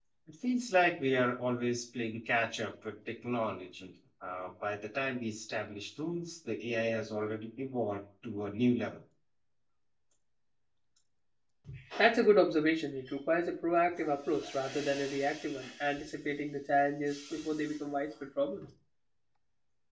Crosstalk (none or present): none